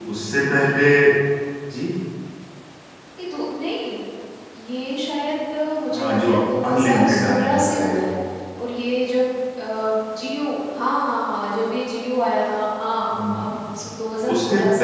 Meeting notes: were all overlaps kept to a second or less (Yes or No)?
No